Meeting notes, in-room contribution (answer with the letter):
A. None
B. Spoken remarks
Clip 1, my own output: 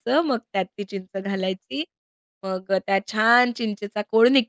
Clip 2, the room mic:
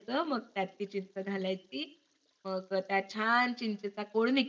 A